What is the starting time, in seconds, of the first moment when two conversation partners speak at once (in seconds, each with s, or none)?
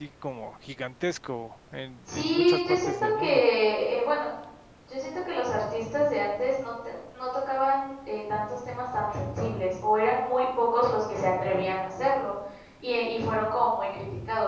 2.1 s